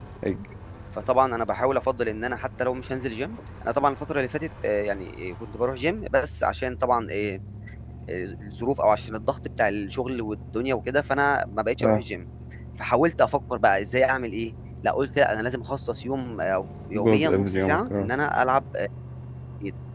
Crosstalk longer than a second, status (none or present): present